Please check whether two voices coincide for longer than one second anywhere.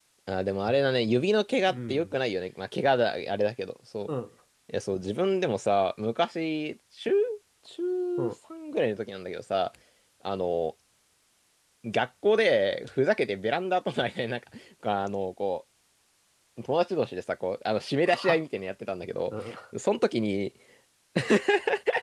No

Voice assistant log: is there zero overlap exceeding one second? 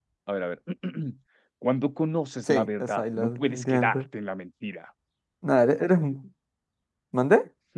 No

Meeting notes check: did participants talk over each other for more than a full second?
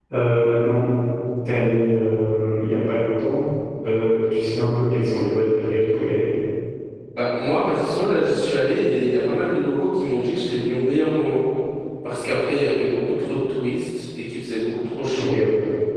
No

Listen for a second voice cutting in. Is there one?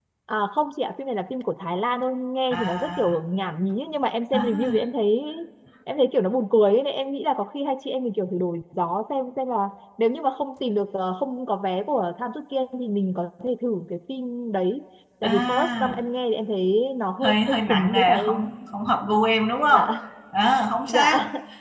Yes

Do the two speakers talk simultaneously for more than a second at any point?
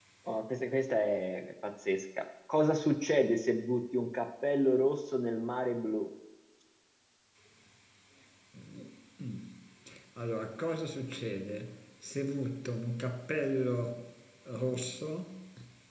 No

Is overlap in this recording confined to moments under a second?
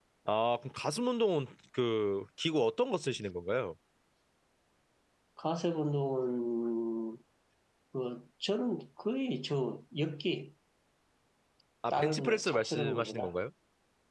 No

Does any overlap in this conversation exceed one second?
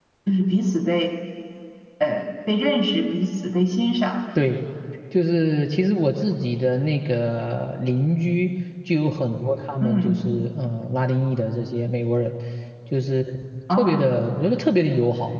No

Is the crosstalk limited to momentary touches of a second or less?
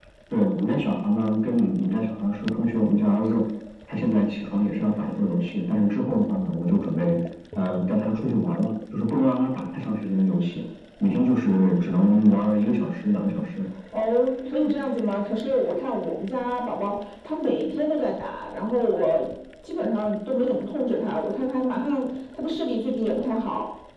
Yes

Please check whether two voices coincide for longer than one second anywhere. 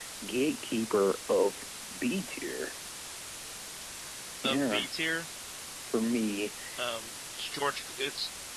No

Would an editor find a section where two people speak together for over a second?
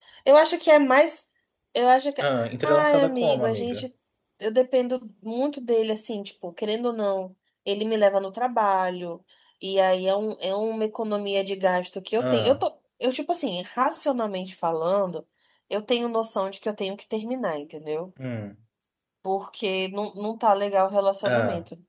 Yes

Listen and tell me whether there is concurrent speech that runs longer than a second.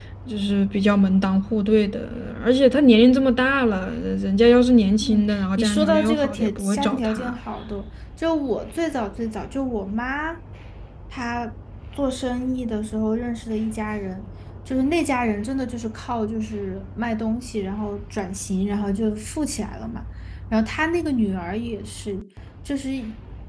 Yes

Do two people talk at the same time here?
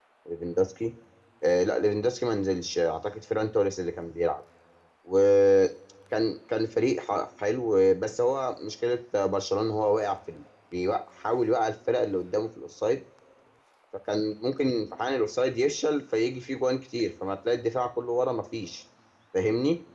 No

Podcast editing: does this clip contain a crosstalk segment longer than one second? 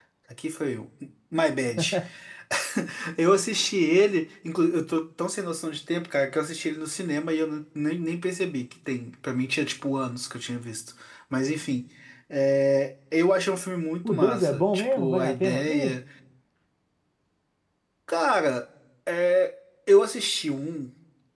Yes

